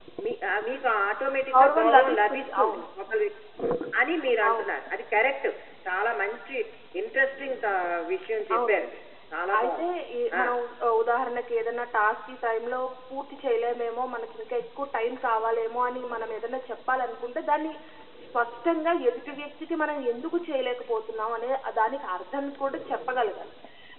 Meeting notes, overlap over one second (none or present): present